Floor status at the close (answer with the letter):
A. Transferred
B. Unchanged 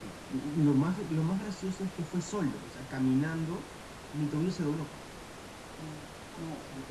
B